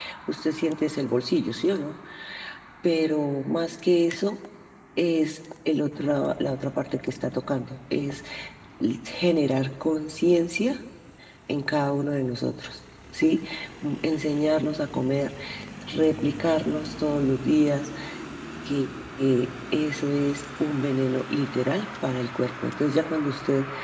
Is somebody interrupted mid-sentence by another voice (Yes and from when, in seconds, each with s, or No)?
No